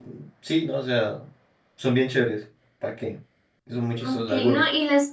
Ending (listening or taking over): taking over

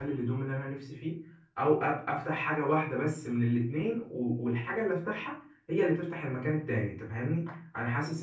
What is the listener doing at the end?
listening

